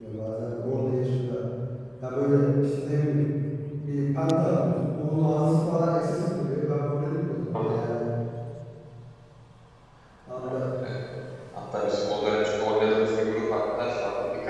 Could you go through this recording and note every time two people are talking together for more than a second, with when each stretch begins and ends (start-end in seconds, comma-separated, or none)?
none